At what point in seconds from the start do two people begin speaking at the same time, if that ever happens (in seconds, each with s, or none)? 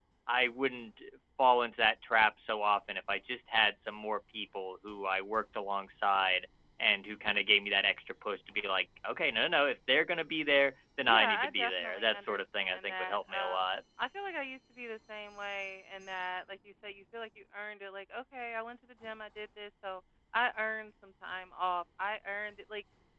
11.0 s